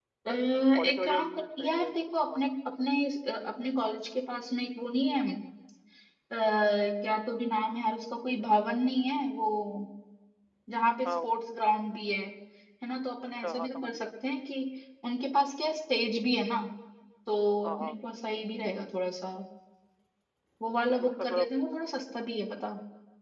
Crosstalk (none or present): present